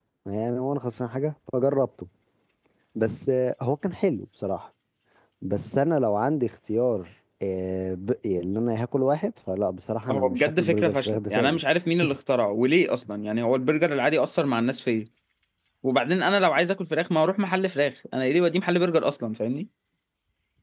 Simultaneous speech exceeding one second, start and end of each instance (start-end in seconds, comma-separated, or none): 10.1-11.6